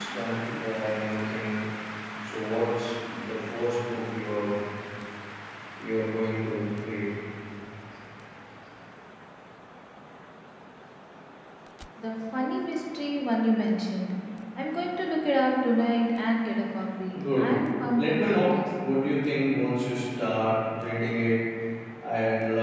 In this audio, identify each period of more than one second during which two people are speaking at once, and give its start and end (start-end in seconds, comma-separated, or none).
17.2-18.6